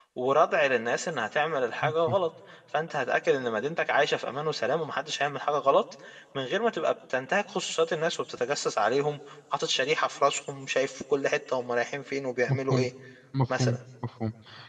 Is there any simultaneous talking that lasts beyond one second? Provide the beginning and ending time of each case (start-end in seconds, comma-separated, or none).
none